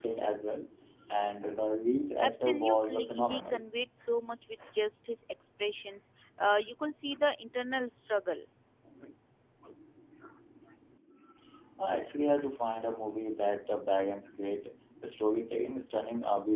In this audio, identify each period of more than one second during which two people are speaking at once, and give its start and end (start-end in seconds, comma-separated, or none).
2.2-3.6